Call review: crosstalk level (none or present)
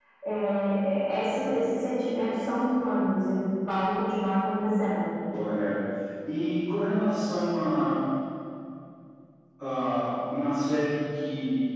none